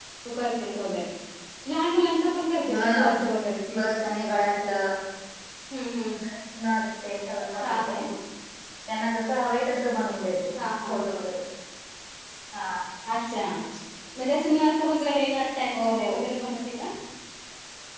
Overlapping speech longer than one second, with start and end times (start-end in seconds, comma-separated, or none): none